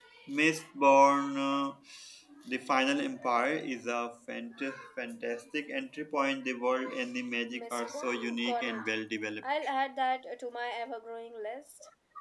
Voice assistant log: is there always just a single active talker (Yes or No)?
No